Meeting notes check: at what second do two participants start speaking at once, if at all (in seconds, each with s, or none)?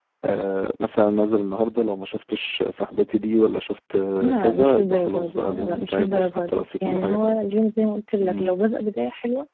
4.2 s